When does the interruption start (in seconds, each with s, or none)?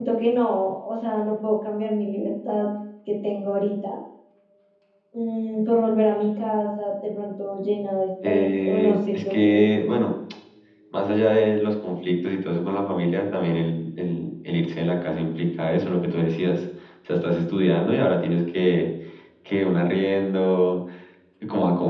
8.2 s